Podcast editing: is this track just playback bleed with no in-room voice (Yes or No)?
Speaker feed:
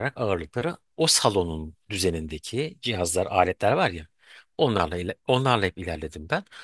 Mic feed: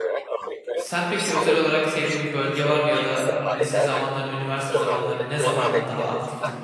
No